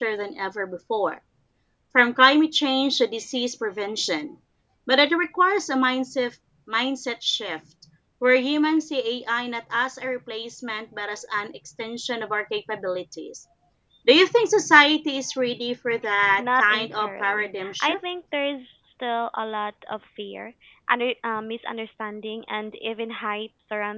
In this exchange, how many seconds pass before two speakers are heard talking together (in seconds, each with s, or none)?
16.4 s